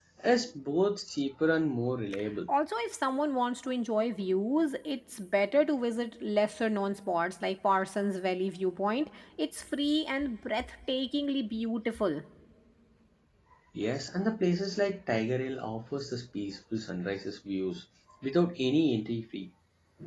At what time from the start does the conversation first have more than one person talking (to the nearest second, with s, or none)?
none